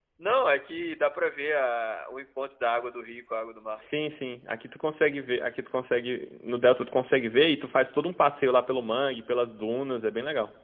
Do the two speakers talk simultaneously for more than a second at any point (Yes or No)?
No